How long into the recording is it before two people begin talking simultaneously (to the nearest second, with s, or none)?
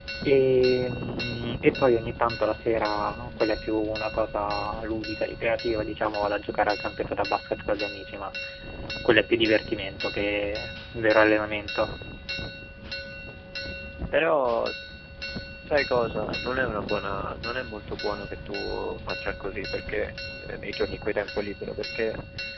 none